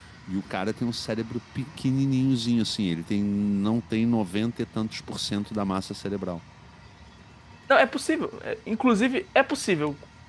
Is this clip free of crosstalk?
Yes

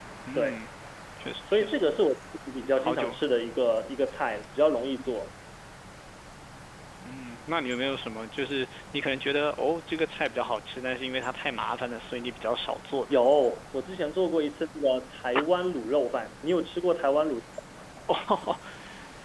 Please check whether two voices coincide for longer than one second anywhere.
No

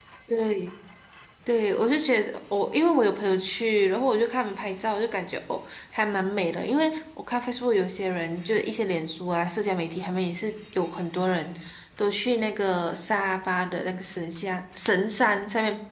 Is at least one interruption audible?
No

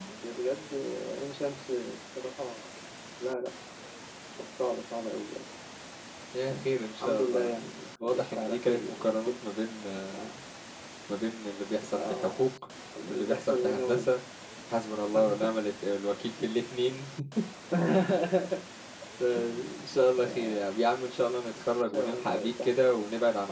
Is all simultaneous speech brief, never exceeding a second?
No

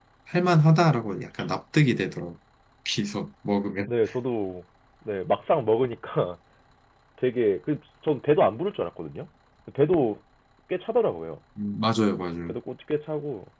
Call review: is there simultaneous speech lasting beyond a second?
No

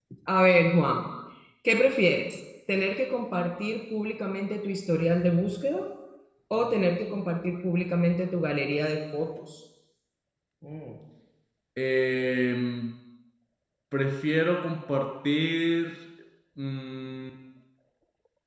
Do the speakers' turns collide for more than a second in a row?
No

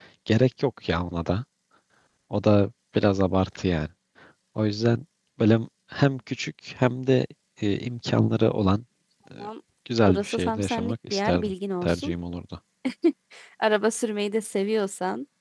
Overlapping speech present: Yes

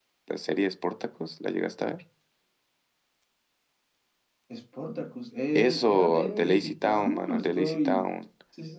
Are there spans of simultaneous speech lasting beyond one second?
Yes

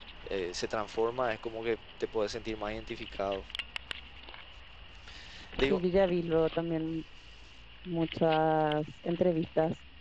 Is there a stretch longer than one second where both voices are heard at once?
No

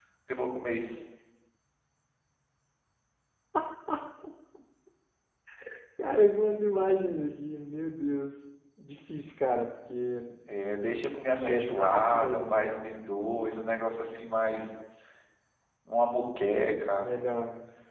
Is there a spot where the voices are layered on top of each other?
Yes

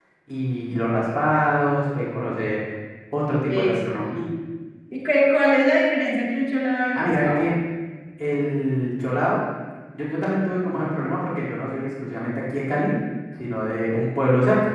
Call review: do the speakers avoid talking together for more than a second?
Yes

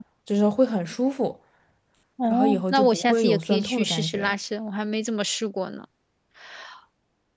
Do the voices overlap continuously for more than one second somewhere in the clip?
Yes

